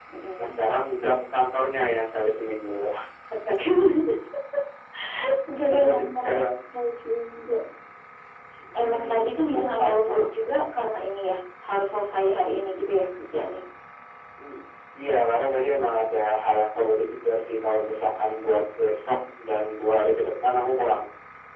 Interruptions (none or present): present